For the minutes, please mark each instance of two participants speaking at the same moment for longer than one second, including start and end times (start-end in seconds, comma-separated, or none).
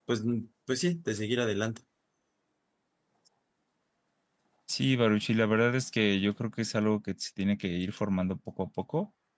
none